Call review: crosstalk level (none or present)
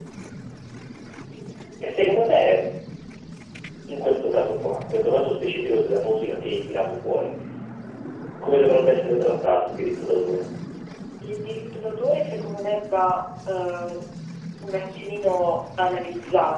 none